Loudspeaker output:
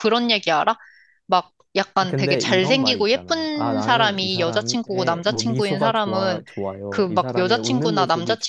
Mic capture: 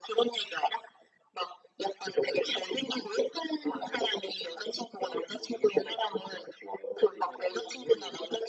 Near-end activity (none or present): none